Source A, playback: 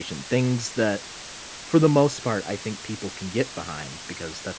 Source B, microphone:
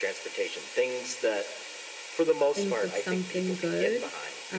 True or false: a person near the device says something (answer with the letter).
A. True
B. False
A